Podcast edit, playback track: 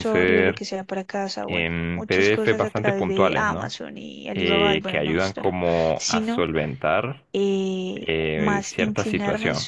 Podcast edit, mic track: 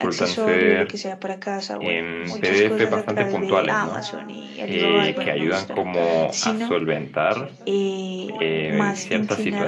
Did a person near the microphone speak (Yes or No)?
Yes